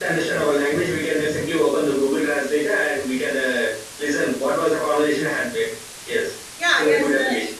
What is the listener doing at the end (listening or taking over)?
taking over